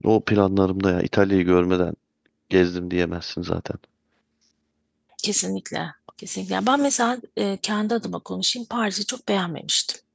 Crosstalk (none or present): none